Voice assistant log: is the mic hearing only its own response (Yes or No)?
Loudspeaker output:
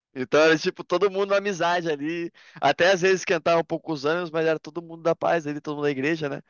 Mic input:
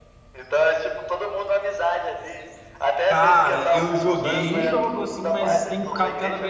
No